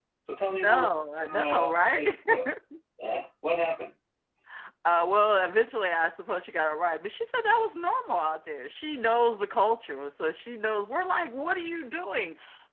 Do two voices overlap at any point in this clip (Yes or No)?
Yes